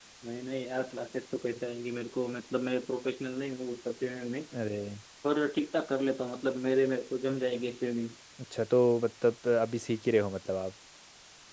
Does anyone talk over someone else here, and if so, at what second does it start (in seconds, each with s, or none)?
none